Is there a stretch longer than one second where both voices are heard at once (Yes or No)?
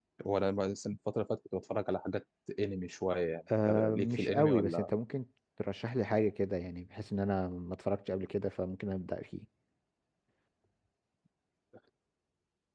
Yes